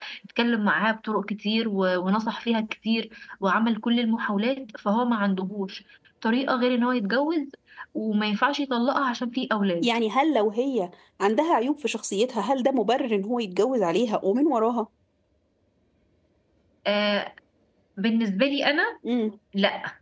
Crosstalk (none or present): none